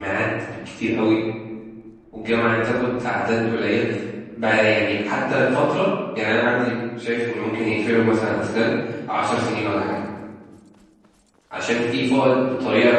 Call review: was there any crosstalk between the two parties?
No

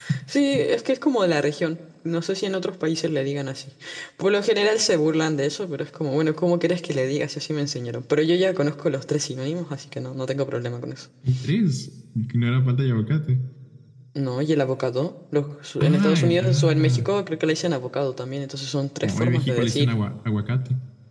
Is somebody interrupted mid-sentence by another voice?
Yes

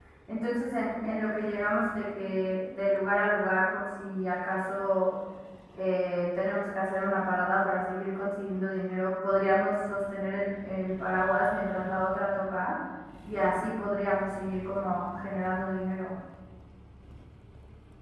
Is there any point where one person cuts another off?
No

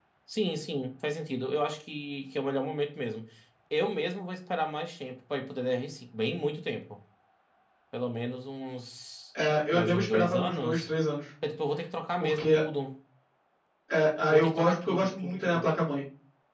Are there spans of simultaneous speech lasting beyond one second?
Yes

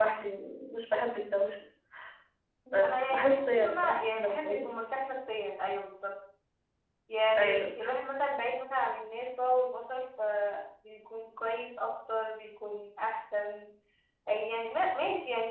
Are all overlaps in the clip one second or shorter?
No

